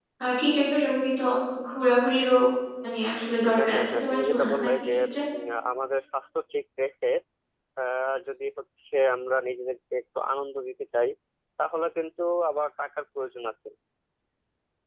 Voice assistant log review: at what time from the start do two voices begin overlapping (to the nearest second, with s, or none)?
4 s